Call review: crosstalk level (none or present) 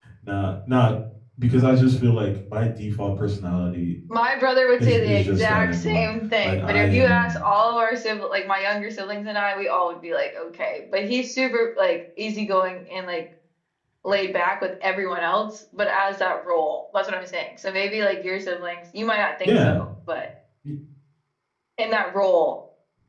present